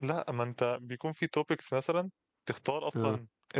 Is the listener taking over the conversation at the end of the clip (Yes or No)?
No